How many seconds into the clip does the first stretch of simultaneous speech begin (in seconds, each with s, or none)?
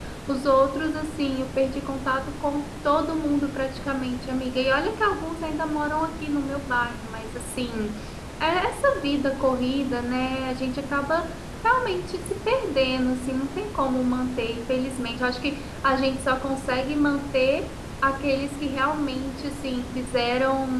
none